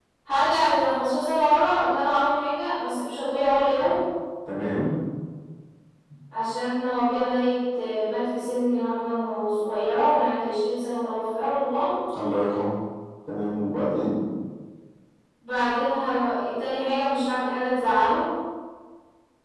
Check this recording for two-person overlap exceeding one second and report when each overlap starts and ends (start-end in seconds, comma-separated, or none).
none